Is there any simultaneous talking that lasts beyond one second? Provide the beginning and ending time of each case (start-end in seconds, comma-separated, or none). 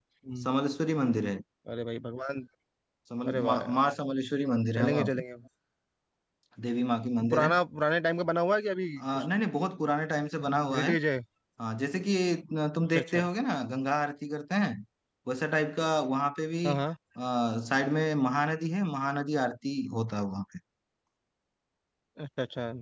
none